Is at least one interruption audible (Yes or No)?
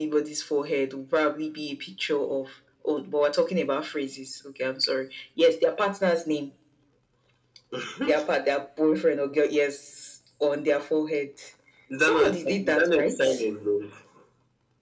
Yes